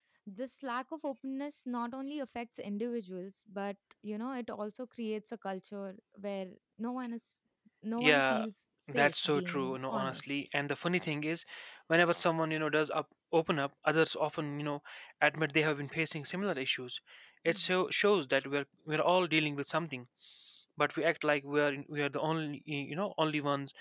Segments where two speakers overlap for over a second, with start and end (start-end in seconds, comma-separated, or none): 8.9-10.4